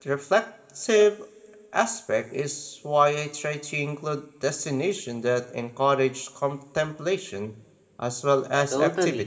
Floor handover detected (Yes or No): Yes